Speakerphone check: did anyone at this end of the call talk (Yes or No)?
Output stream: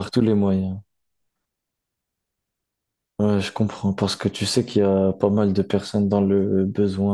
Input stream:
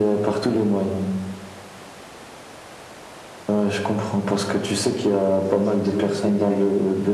Yes